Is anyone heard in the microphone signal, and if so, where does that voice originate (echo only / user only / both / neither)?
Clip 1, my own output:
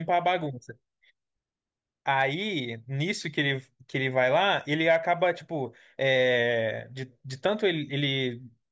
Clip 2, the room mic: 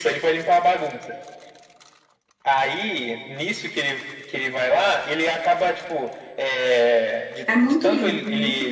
both